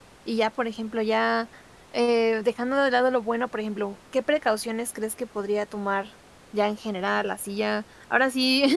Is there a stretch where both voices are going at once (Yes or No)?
No